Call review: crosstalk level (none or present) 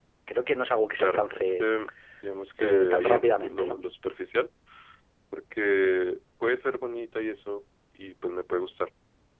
present